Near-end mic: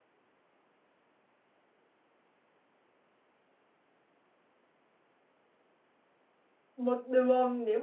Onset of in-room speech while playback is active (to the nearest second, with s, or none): 7 s